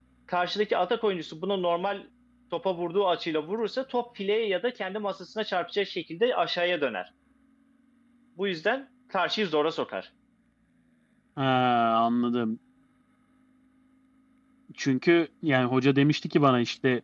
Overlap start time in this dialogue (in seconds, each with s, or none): none